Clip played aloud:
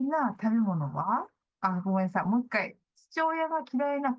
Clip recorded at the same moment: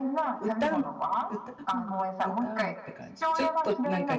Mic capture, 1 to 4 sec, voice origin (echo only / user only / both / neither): both